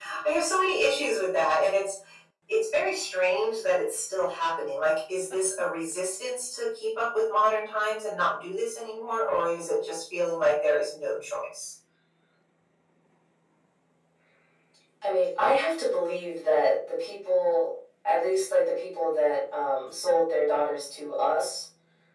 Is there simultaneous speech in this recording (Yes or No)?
No